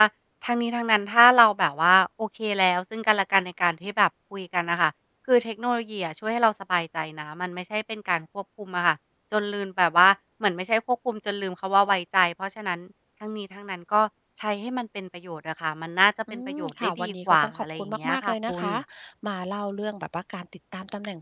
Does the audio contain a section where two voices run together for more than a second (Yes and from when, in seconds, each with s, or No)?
Yes, from 16.3 s